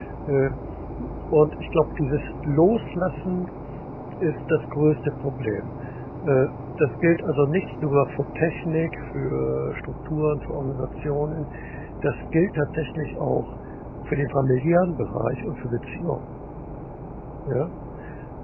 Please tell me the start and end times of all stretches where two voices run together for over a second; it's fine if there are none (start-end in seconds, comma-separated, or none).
none